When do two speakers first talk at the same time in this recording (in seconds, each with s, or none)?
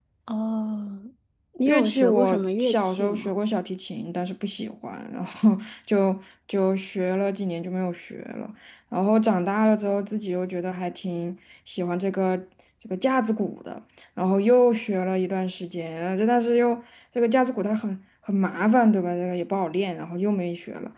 1.6 s